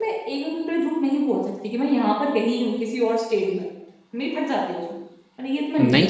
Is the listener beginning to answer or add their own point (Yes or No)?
Yes